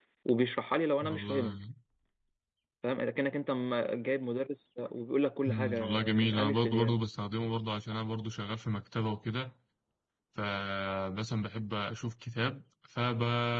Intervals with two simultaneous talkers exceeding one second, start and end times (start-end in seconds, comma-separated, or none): 5.5-7.0